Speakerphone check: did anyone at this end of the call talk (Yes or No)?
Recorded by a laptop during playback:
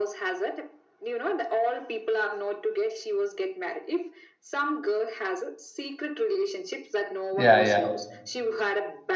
Yes